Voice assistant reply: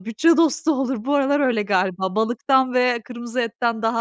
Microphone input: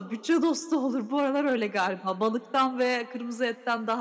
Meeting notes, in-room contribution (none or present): none